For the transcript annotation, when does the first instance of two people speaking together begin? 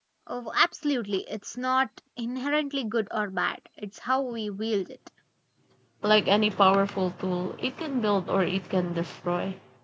none

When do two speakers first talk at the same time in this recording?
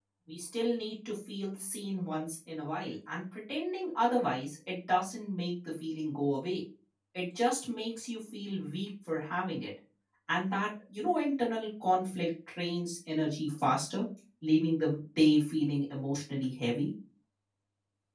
none

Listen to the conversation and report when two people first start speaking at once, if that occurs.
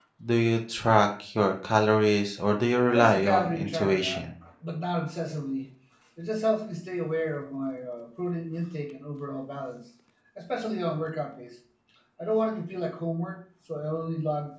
3 s

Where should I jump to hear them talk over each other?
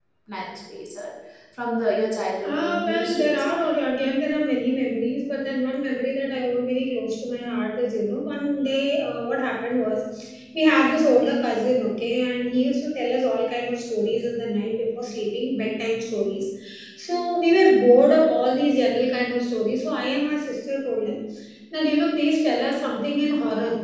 2 s

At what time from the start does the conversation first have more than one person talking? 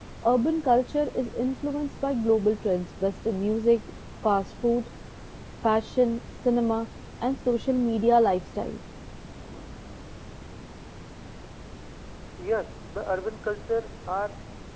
none

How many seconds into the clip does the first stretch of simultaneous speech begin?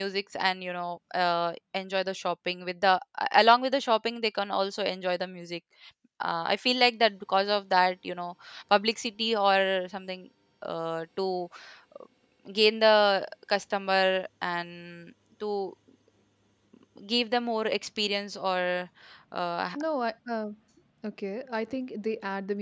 none

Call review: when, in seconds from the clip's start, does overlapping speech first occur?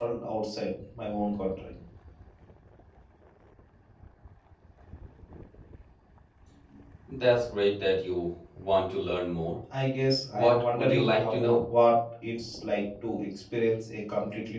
10 s

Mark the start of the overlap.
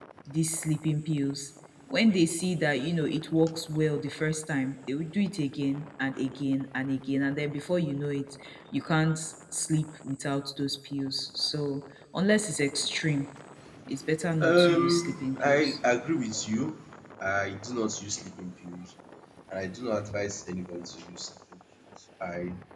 14 s

